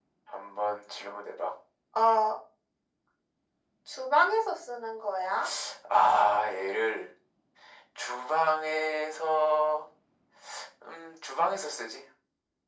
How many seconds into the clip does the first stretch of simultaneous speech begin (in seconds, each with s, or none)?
none